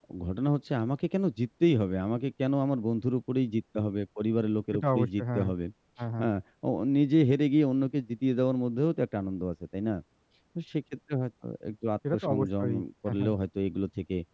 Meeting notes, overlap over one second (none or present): present